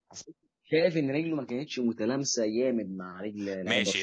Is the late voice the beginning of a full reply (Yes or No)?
Yes